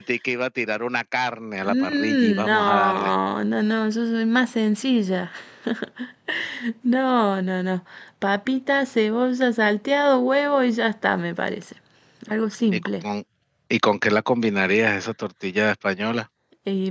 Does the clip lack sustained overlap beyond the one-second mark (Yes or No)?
No